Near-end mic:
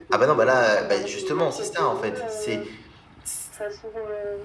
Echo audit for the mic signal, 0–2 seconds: both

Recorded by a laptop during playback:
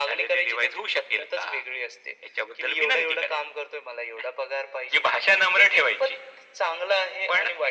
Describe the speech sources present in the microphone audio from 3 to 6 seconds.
echo only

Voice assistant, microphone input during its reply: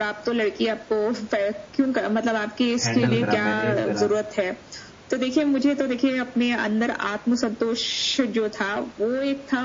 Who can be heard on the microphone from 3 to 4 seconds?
both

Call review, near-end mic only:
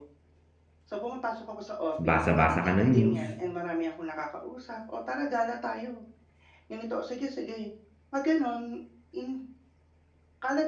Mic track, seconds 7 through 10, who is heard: echo only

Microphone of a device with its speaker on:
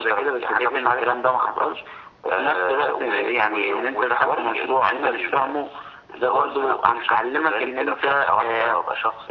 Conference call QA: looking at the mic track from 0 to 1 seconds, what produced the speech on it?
echo only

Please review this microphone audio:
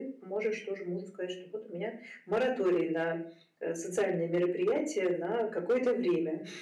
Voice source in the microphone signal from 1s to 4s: echo only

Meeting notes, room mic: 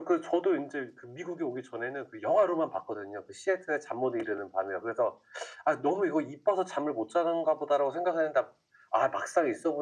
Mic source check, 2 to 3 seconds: echo only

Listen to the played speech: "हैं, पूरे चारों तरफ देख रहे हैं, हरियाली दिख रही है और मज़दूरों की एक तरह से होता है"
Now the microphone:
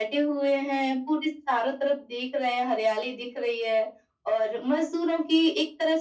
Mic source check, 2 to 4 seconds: echo only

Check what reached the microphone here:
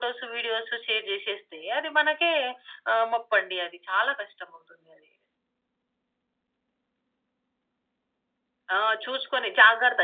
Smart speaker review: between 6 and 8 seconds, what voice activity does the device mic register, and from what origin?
neither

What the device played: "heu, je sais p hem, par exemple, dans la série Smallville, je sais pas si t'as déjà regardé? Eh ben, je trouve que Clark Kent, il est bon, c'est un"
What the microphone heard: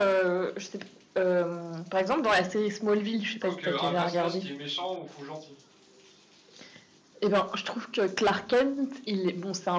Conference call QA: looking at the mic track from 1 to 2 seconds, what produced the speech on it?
echo only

